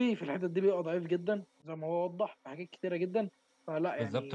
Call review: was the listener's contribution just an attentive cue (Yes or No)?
No